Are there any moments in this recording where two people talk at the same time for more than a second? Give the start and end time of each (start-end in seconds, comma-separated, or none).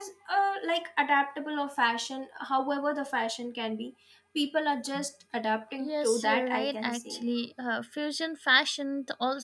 5.8-7.2